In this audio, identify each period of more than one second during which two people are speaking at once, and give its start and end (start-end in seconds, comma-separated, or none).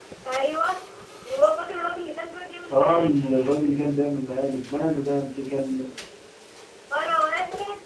none